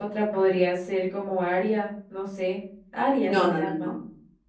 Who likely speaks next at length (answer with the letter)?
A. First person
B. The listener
B